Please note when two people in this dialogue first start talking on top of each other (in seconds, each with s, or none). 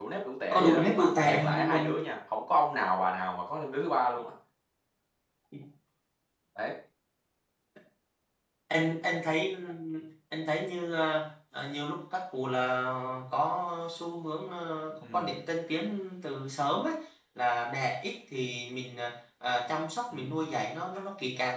0.5 s